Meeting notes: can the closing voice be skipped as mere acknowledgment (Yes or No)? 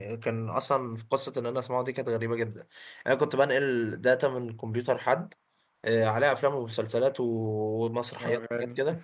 Yes